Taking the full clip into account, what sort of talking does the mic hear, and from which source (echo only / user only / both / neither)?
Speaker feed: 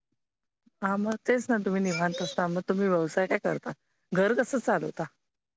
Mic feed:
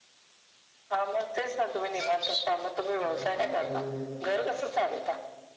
both